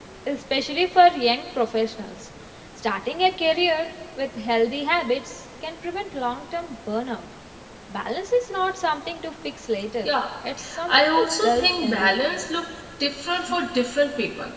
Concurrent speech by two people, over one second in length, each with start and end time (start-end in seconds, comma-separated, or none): 10.9-12.2